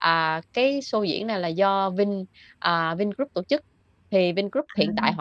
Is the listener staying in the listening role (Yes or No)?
Yes